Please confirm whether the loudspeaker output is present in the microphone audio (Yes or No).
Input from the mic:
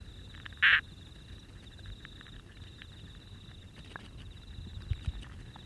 No